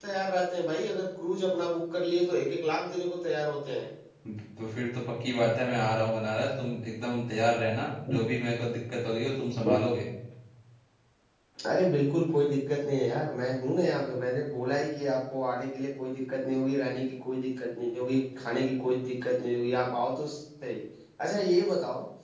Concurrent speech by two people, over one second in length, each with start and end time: none

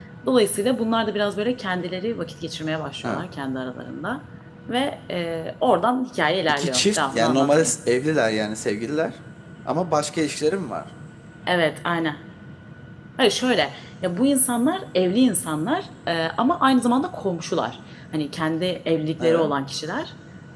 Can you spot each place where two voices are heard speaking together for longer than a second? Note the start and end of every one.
6.5-7.8

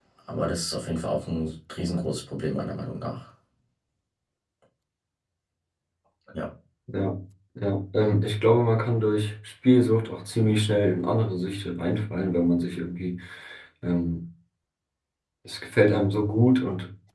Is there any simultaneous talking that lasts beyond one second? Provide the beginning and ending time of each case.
none

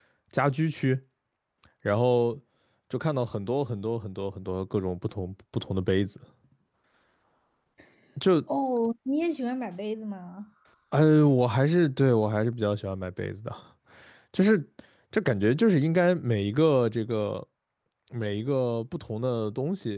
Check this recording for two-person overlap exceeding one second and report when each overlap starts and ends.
none

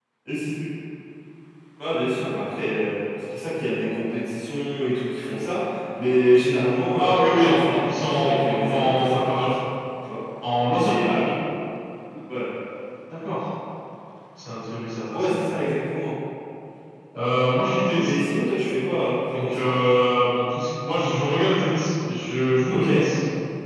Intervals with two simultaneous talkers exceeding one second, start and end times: 6.9-9.4

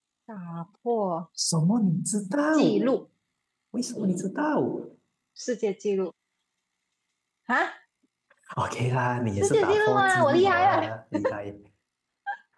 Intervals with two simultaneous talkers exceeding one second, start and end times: 9.4-10.9

